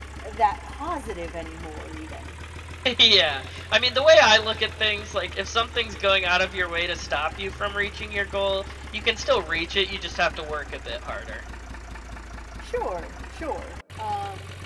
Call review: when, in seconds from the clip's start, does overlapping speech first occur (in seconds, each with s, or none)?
none